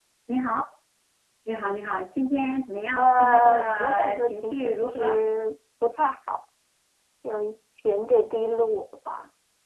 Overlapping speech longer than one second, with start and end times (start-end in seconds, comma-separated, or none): 3.0-5.1